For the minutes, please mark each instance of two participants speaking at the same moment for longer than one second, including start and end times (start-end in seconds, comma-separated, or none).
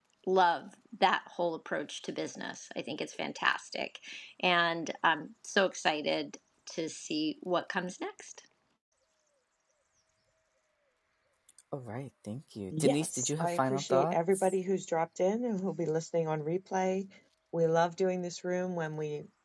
12.8-14.5